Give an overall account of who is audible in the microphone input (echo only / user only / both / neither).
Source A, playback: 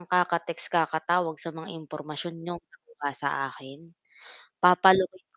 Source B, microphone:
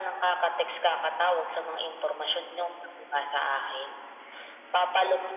echo only